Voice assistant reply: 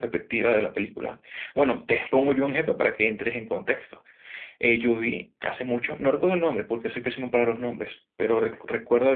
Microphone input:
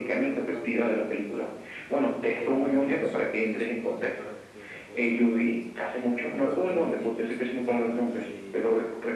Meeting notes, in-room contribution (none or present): present